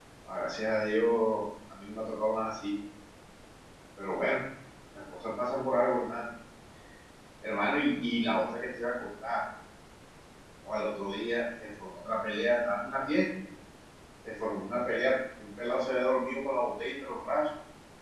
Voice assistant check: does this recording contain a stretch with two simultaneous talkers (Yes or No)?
No